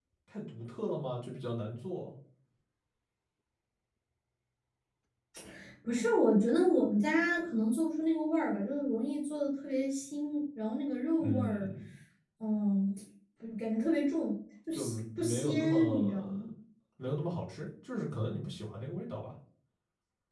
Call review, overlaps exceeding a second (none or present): present